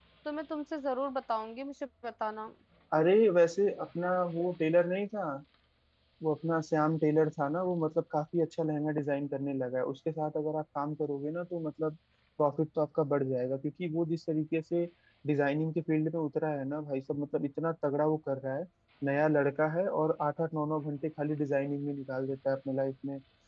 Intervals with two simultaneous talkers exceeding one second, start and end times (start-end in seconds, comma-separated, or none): none